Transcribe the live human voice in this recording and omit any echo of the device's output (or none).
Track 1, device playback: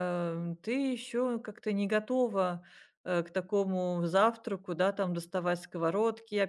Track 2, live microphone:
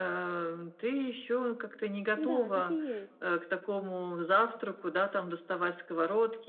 Да, так и есть.